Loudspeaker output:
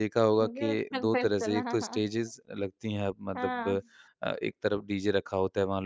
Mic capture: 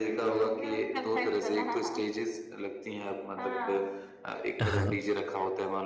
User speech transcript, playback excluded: हाँ।

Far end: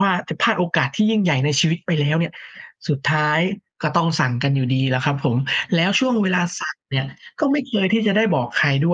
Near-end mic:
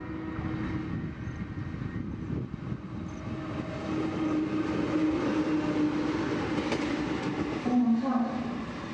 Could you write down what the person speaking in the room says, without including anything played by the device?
อ๋อ ค่ะ

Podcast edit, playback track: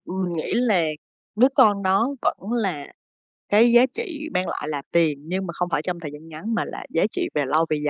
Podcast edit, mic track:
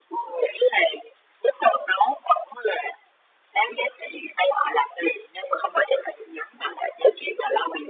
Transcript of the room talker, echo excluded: none

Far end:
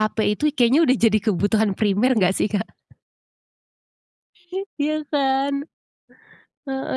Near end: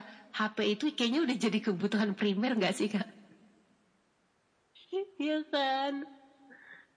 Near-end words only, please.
none

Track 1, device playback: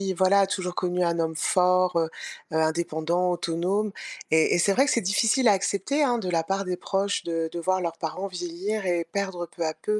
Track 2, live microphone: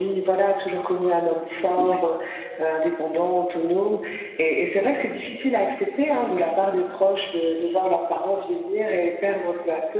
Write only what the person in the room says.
Ouais.

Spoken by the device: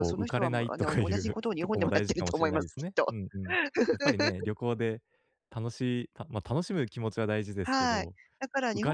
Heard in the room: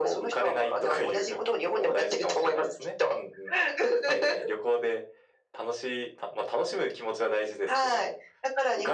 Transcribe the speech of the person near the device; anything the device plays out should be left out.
none

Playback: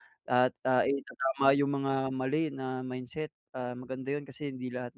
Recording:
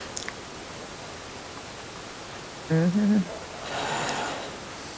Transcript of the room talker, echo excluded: Mhm.

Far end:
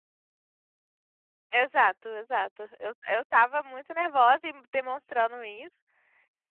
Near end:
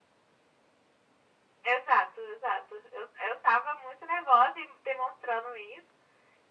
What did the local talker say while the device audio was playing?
none

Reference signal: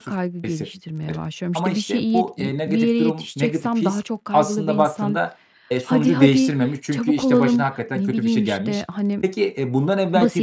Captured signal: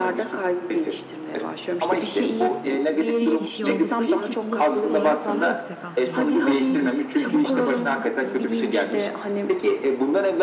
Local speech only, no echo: 2 kişi oldukları için olasılık olarak daha yüksek aslında, ııı, negatif bir şeyle karşılaşmam

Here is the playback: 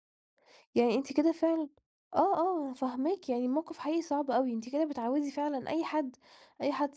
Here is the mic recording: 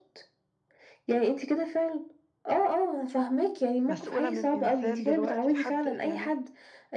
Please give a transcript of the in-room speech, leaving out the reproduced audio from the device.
مسؤولة من إنسان دلوقتي لحد يعني

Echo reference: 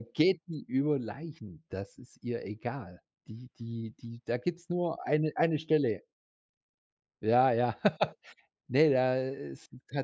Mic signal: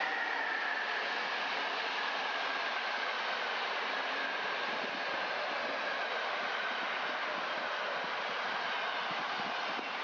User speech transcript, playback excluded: none

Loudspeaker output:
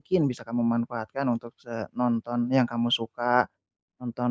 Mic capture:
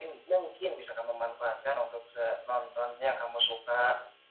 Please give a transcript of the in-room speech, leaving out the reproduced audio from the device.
none

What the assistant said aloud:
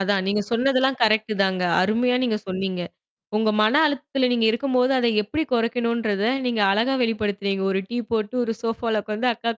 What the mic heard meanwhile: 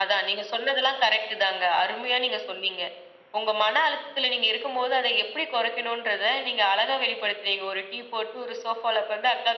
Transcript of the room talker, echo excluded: none

